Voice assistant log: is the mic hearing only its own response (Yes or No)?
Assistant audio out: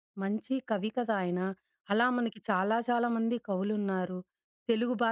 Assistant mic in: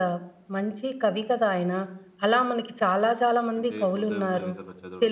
No